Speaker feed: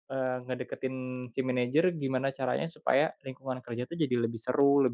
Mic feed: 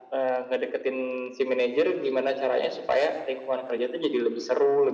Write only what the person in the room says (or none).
none